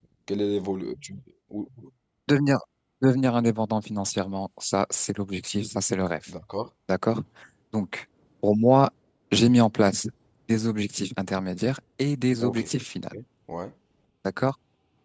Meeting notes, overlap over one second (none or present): none